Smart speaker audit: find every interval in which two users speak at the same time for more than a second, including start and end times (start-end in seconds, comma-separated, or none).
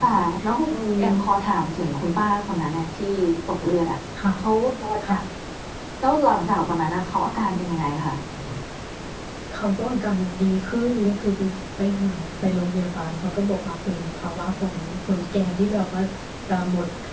none